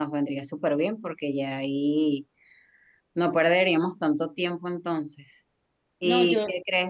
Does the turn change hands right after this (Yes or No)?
No